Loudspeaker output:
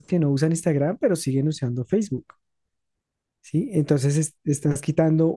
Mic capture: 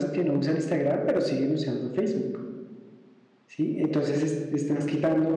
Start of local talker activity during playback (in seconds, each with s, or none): none